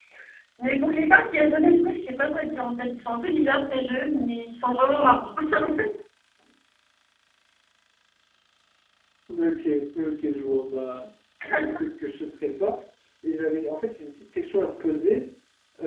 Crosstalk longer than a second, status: none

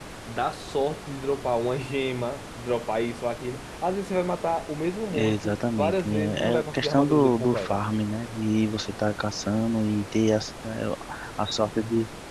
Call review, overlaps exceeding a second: present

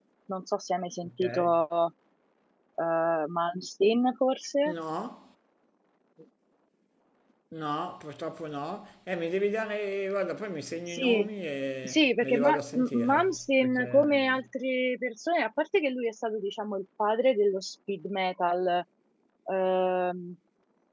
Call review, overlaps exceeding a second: present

